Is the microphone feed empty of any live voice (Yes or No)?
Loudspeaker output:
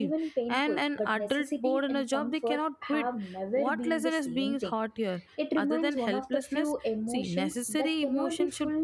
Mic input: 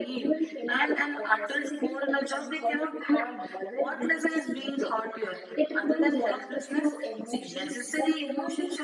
Yes